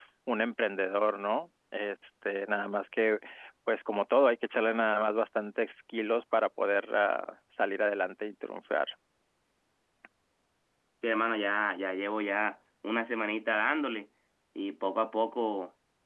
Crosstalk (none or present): none